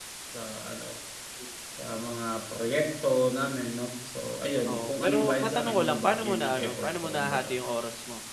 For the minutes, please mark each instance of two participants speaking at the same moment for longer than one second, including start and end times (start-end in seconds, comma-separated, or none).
4.7-7.5